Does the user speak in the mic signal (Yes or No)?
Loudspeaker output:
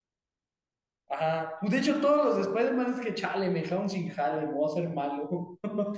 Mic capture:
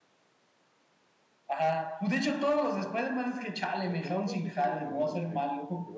Yes